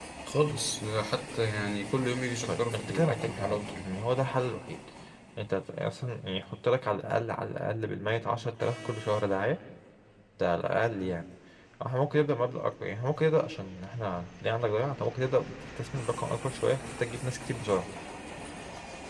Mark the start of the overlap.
2 s

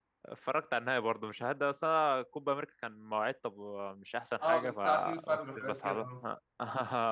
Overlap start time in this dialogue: 4 s

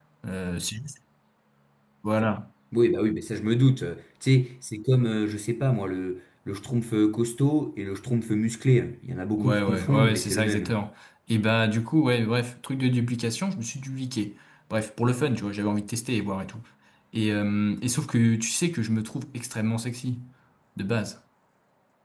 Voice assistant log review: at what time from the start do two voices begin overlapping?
9 s

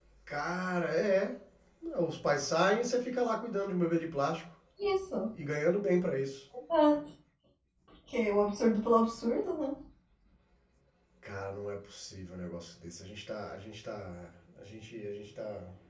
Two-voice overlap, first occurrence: none

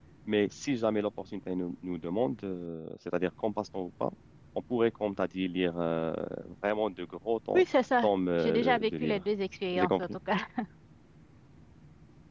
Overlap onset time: 8 s

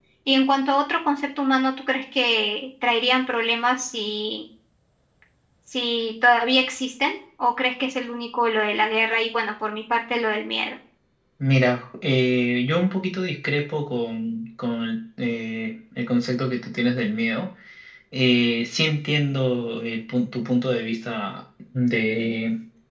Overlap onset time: none

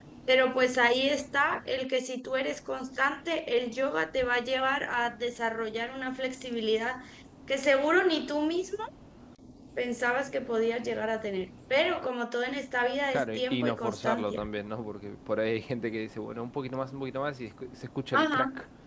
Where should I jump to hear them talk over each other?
13 s

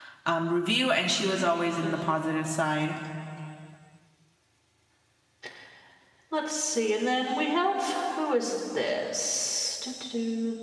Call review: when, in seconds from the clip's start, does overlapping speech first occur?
none

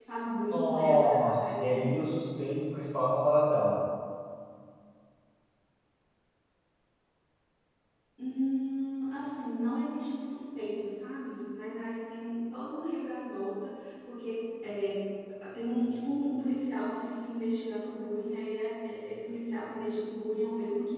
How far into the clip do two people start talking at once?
1 s

